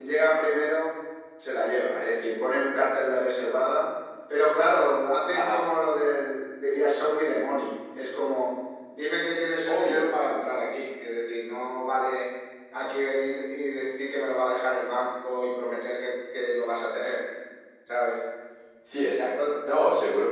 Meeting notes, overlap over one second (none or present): none